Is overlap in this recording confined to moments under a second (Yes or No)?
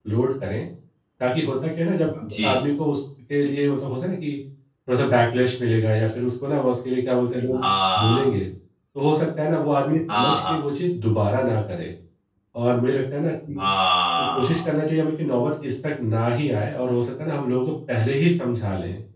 Yes